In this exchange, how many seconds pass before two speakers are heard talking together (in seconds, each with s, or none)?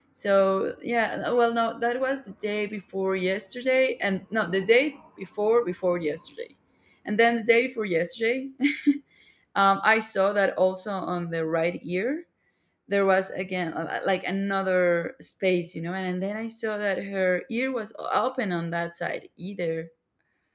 none